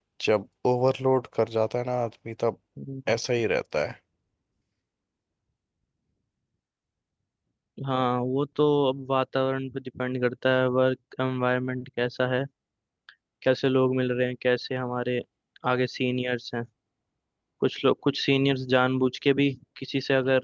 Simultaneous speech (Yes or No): No